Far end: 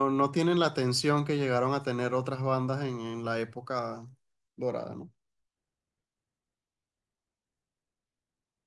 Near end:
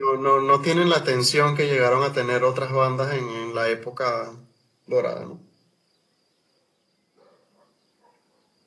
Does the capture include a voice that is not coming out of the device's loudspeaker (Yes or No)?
No